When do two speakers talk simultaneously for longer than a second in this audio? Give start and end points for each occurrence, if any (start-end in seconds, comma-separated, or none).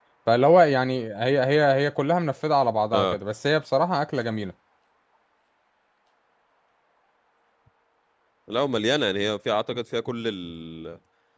none